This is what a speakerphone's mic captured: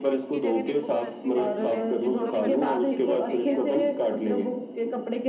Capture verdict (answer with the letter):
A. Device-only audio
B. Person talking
B